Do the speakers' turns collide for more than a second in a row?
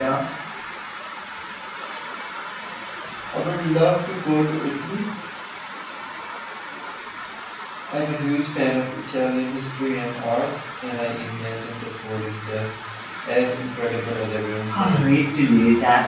No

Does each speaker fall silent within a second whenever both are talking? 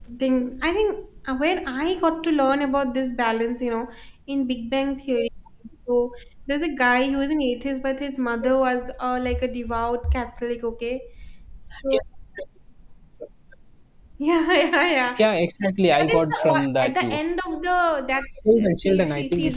No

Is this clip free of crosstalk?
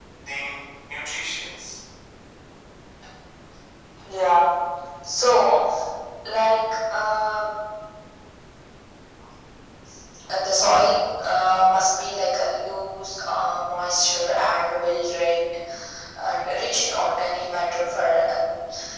Yes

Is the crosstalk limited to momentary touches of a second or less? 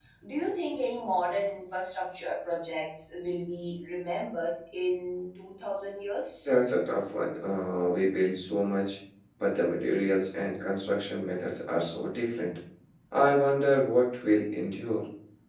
Yes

